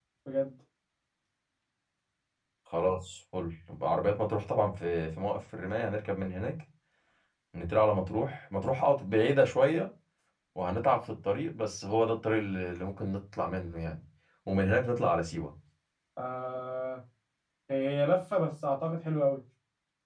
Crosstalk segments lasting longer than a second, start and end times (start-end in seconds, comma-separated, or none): none